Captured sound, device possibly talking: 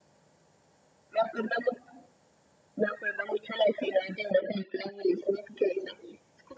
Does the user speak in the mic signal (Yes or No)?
No